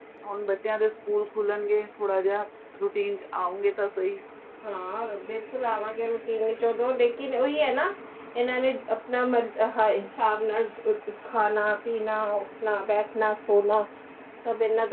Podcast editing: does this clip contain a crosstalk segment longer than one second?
No

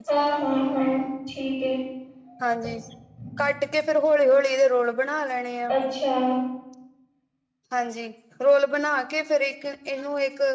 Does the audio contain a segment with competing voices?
No

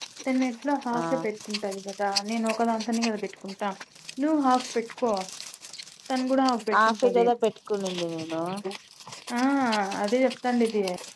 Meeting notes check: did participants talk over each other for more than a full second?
No

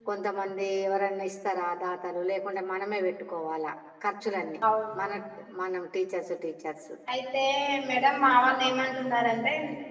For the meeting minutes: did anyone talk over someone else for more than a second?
No

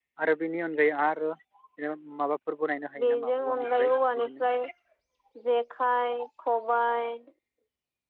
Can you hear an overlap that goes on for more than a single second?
Yes, from 3.0 s

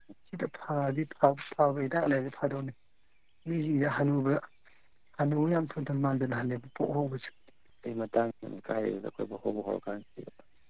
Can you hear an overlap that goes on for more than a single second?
No

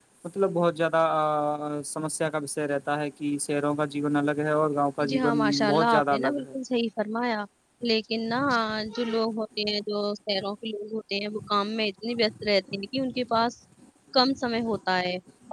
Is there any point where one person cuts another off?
Yes, from 5.1 s

